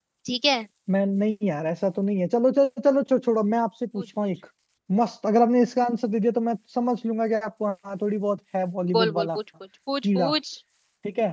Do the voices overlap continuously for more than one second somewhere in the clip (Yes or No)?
No